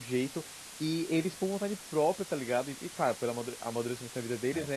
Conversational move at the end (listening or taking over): listening